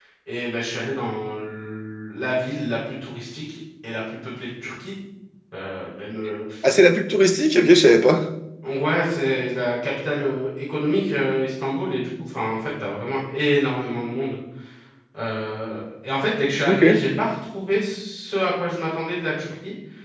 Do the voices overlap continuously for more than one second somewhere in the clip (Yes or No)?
No